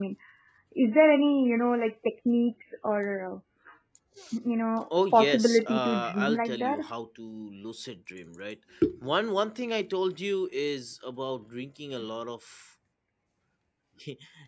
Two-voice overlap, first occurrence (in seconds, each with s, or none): 5.0 s